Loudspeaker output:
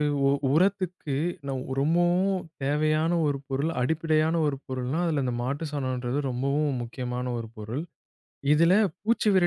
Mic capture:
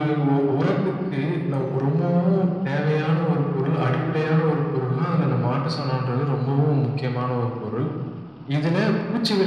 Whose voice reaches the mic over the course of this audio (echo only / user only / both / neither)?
echo only